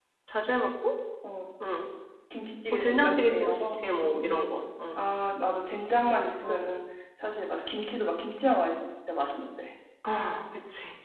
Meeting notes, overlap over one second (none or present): present